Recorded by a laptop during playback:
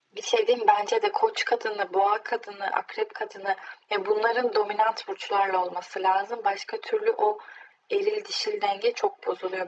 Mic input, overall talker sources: echo only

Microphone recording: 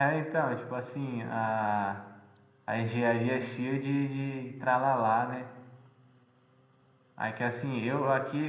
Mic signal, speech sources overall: user only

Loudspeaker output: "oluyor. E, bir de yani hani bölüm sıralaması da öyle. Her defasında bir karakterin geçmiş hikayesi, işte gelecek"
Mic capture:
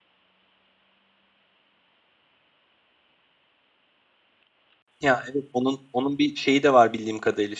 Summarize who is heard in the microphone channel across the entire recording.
user only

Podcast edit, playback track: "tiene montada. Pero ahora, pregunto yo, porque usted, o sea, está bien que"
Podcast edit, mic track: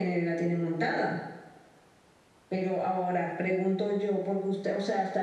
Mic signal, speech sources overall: echo only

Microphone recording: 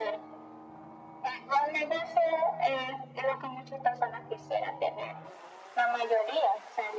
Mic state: echo only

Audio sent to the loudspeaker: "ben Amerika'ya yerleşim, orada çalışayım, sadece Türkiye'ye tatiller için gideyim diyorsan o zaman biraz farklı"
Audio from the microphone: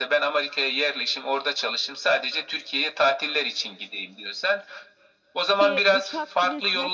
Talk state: both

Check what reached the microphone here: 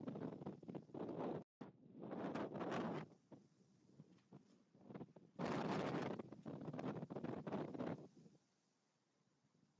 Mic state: neither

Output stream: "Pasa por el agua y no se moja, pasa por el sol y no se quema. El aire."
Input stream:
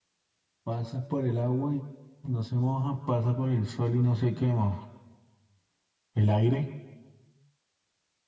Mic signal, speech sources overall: echo only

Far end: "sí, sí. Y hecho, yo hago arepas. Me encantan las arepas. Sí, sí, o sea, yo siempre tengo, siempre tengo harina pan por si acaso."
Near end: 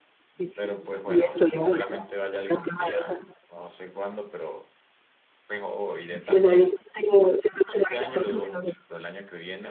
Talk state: both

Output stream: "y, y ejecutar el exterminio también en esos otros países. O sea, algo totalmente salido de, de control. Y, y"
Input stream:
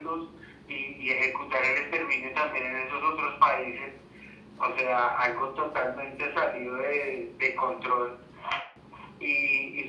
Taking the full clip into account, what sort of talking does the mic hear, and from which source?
echo only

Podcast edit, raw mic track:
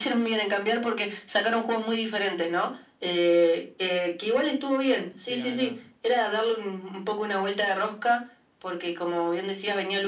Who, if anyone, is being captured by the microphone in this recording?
both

